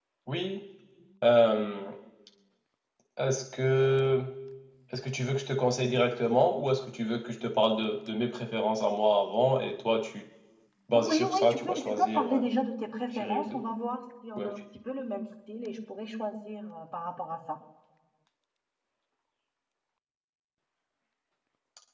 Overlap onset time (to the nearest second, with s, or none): 11 s